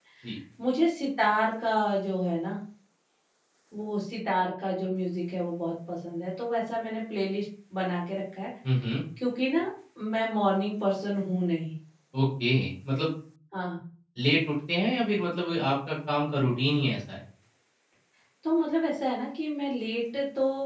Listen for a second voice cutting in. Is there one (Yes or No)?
No